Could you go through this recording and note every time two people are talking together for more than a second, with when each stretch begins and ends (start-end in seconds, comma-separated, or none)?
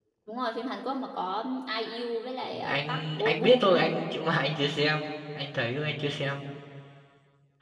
2.5-3.8